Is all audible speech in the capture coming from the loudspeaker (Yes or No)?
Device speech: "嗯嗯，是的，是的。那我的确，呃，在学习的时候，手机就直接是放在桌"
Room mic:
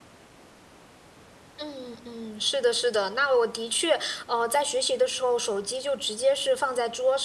Yes